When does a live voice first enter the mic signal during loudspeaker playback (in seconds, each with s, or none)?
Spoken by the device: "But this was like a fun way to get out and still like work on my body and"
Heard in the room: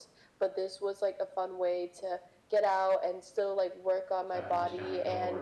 4.2 s